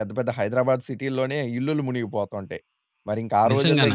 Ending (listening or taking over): listening